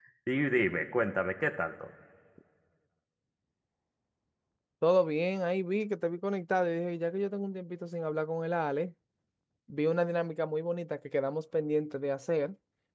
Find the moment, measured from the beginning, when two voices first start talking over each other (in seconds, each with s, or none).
none